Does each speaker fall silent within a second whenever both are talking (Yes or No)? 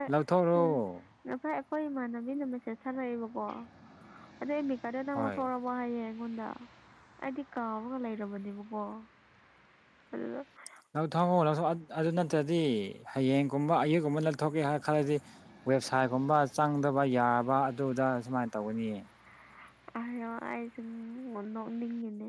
Yes